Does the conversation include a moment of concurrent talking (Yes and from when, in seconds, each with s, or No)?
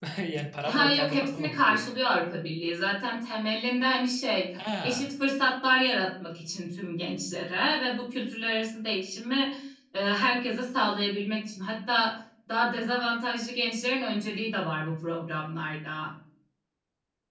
Yes, from 0.6 s